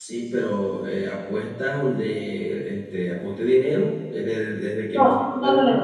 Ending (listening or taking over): taking over